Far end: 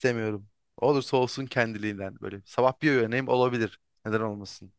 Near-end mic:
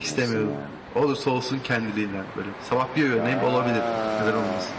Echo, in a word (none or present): present